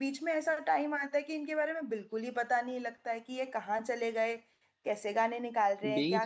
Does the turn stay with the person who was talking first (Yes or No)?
No